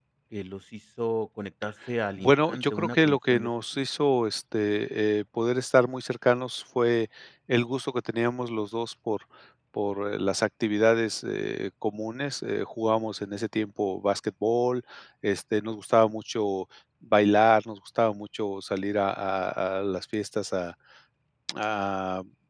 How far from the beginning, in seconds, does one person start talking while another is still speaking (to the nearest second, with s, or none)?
2 s